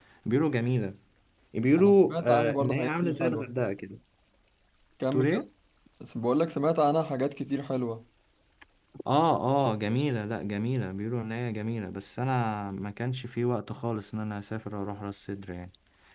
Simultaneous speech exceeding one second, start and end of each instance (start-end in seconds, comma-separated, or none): 1.8-3.5